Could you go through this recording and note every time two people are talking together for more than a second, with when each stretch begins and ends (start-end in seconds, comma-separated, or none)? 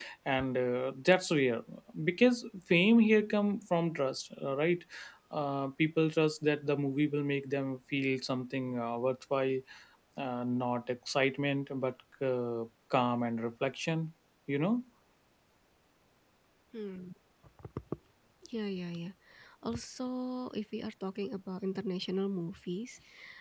none